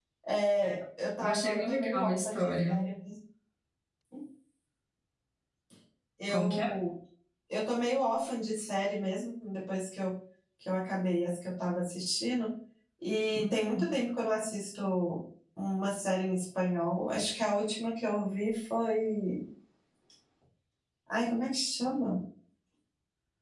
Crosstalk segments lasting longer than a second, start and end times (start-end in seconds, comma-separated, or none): 1.2-2.8